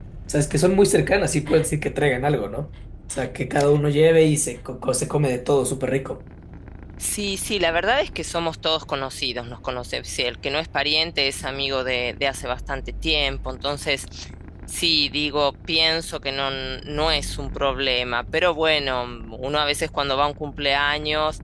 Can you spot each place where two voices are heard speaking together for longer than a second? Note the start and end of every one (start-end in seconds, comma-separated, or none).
none